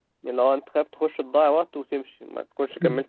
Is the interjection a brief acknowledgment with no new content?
No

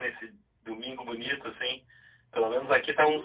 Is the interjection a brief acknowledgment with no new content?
No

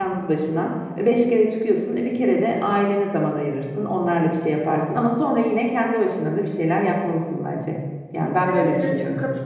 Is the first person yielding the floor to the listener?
Yes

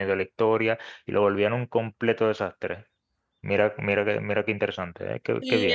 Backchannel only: No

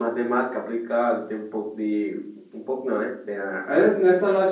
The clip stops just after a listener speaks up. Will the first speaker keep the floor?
No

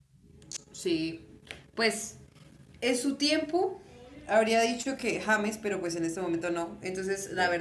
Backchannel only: Yes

